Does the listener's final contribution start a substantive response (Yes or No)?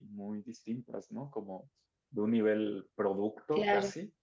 No